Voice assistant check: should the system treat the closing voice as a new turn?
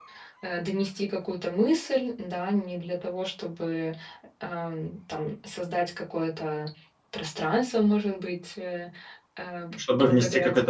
Yes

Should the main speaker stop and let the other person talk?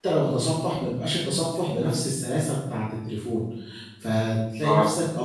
No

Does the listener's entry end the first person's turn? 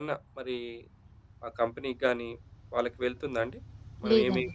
No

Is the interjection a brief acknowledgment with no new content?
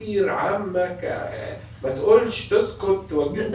No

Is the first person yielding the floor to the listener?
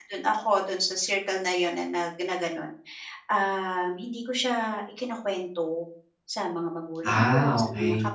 No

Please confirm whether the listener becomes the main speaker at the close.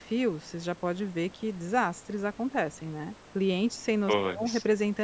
No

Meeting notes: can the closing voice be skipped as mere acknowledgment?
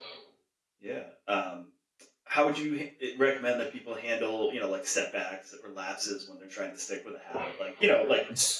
Yes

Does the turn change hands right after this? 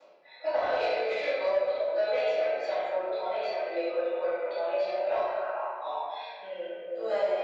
Yes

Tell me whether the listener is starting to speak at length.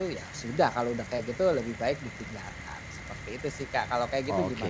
Yes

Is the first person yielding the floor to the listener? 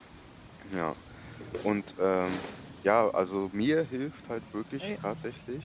No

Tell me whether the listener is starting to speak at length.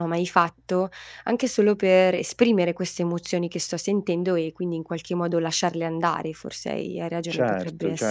Yes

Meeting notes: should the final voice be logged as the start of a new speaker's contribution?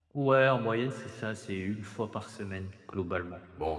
Yes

